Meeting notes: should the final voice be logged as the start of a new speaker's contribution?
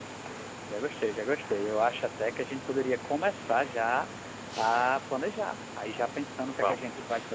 No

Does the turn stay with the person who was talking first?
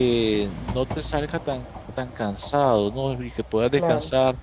Yes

